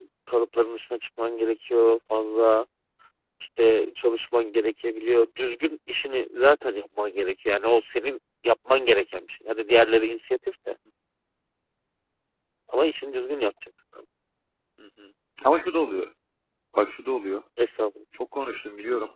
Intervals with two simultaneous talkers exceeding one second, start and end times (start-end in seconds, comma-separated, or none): none